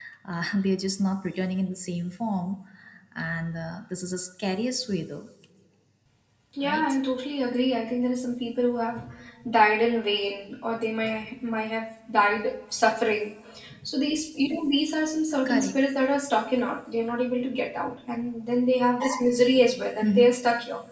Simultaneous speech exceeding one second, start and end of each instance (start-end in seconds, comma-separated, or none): none